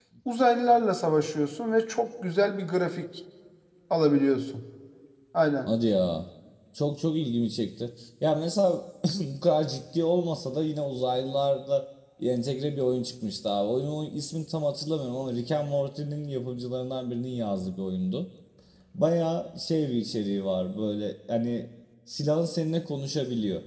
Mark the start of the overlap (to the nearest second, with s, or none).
none